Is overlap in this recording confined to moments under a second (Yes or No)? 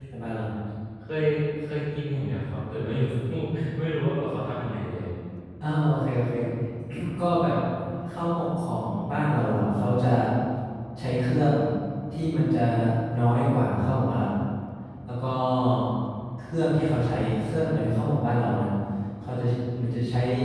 Yes